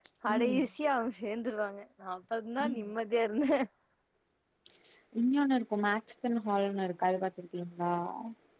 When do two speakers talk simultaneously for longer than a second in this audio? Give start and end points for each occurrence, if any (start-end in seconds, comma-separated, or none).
none